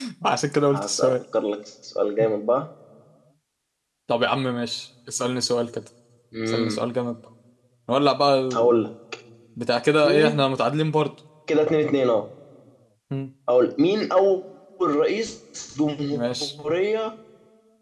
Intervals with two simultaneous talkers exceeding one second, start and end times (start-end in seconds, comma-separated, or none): none